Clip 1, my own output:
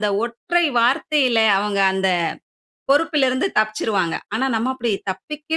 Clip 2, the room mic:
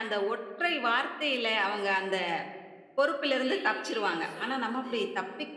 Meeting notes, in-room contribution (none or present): present